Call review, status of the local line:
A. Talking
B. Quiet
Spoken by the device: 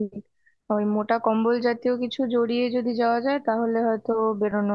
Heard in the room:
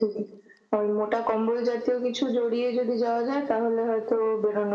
B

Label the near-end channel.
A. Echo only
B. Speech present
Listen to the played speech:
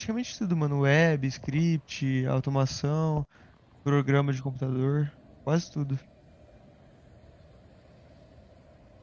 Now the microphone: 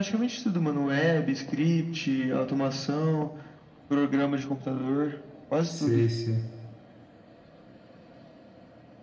B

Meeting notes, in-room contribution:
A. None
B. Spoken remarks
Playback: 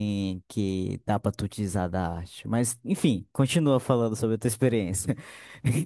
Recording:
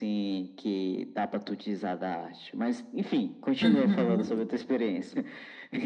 B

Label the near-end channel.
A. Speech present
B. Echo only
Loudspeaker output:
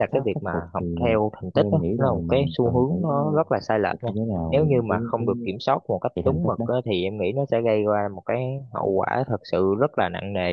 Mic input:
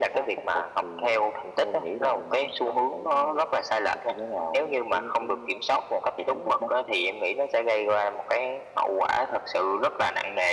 B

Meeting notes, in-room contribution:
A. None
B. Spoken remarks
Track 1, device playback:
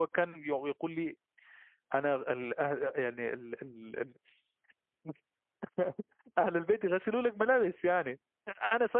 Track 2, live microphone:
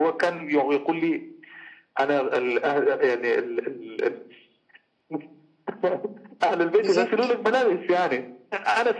B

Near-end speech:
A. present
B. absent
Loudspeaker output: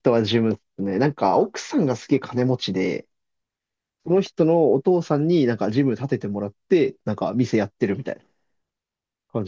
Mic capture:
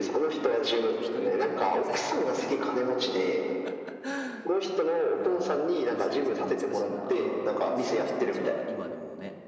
A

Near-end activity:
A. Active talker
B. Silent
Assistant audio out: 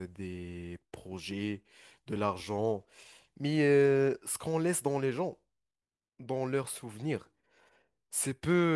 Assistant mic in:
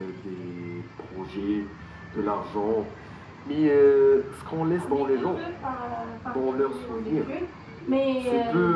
A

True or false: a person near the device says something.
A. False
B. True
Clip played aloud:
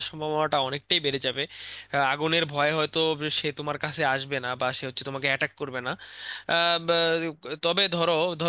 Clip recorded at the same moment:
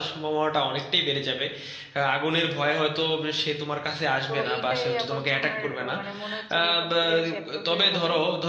B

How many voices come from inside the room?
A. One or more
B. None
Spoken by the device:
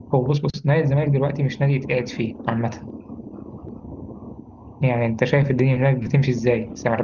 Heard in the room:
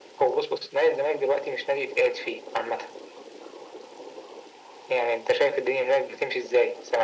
B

